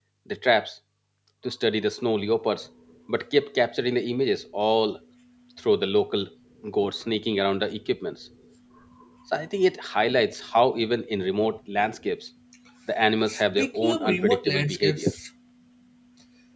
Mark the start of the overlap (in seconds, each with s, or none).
13.3 s